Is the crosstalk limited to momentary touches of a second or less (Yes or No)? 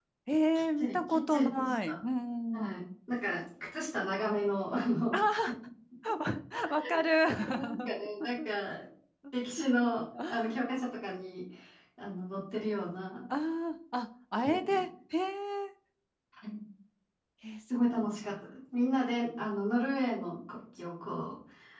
No